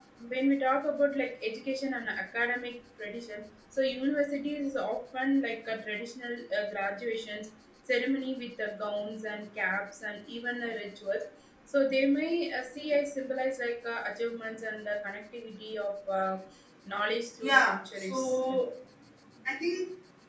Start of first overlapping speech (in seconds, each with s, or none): 17.4 s